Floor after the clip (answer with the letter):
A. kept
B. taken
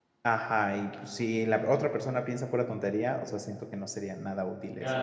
B